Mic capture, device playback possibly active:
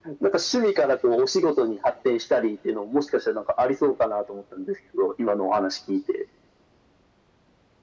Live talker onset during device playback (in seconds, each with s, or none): none